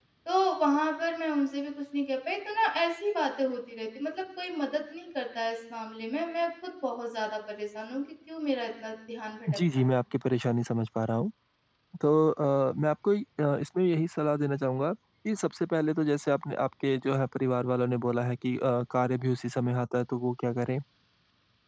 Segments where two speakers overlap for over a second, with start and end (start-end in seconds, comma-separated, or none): none